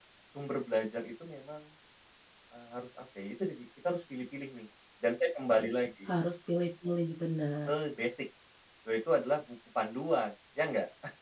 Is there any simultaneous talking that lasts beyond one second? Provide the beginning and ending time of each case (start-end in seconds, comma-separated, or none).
none